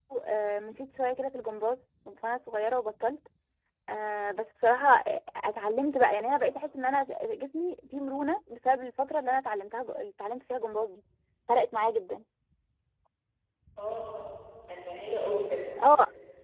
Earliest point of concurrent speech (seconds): none

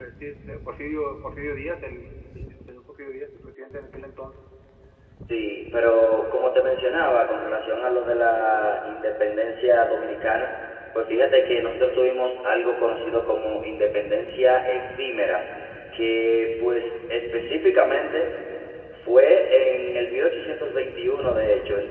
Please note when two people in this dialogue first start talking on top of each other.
none

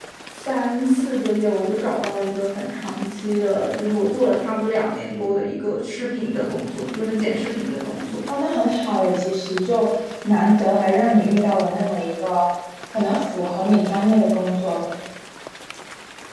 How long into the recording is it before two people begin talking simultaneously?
none

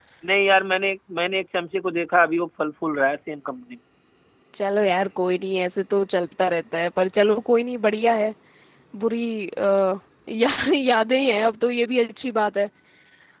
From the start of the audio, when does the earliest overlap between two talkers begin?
none

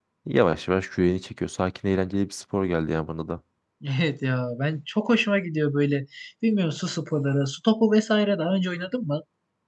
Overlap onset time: none

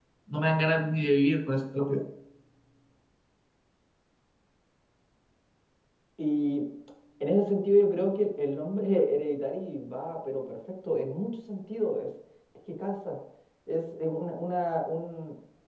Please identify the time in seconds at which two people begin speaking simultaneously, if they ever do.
none

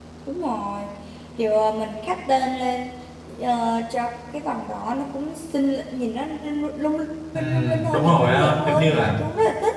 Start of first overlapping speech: 7.3 s

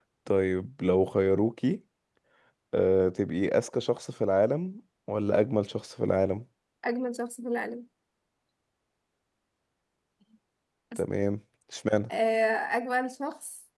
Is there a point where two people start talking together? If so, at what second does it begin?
none

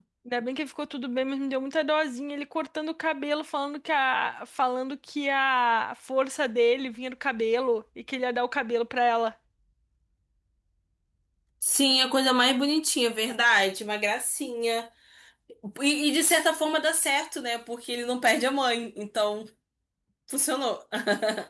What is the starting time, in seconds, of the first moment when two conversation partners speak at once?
none

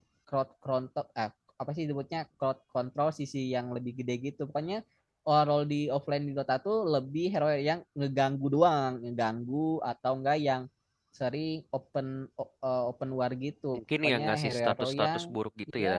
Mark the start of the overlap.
13.7 s

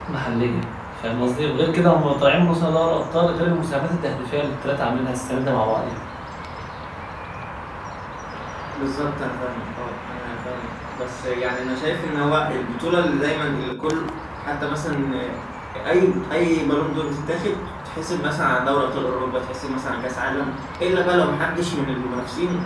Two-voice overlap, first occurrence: none

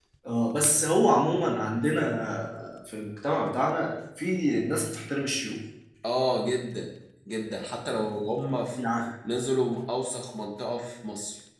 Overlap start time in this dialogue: none

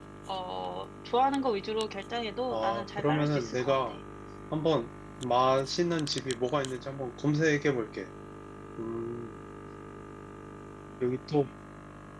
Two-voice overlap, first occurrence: 2.5 s

